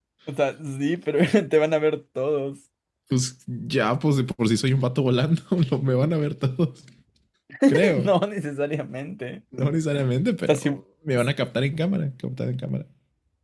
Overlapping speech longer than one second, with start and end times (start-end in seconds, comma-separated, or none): none